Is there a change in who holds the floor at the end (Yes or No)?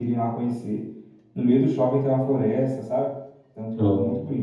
No